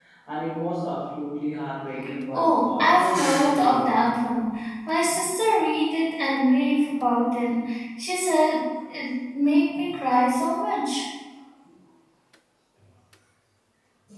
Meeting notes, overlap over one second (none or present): present